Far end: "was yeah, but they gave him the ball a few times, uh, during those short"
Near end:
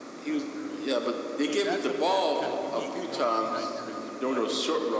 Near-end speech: present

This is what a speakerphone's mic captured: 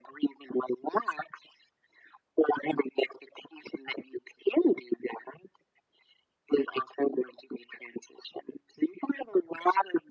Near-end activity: none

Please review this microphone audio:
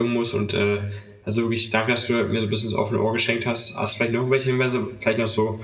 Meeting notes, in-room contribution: present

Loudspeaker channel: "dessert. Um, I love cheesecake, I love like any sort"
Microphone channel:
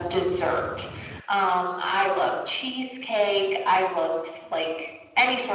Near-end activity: none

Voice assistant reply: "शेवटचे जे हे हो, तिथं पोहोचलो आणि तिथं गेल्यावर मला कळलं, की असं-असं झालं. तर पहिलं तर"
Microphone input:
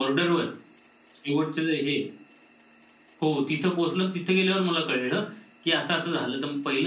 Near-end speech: none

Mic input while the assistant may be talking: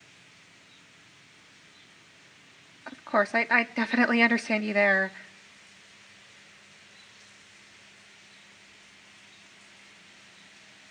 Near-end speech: present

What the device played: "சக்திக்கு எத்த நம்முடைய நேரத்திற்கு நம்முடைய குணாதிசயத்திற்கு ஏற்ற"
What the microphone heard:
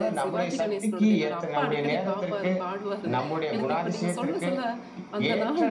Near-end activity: present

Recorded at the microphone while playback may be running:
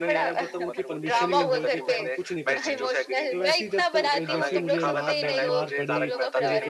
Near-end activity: present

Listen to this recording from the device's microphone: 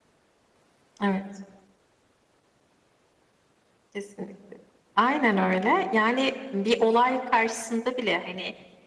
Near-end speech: none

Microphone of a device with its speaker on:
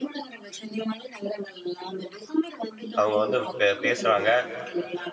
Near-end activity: present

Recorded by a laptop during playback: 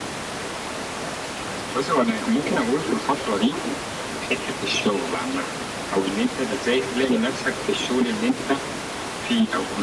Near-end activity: none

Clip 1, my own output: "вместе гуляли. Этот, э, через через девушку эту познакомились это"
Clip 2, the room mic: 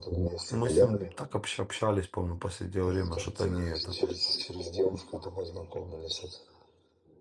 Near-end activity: present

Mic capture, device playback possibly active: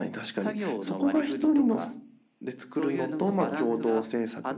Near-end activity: none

